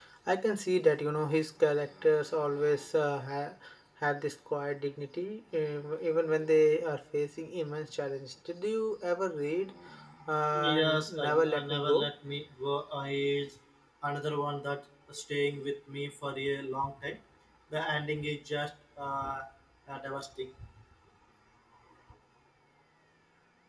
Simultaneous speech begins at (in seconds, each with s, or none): 10.6 s